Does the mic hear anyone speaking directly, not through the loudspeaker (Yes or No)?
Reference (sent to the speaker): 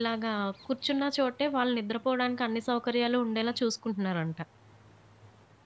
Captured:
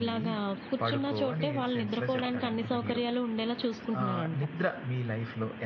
Yes